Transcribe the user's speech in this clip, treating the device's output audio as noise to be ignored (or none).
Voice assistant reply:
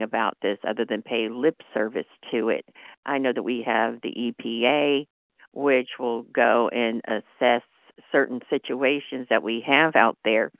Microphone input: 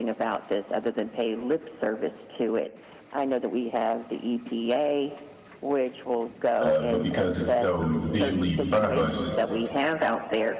Uh, but because it's so visually in front of us,